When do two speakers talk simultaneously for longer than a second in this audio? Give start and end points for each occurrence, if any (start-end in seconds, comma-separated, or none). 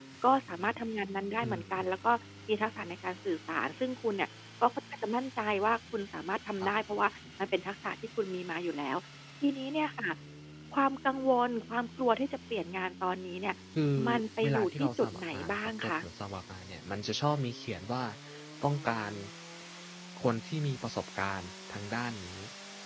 14.4-15.9